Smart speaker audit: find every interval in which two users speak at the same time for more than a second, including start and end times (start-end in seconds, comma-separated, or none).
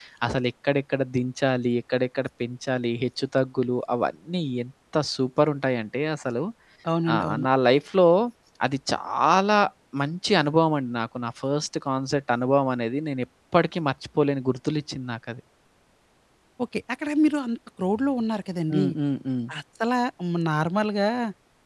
none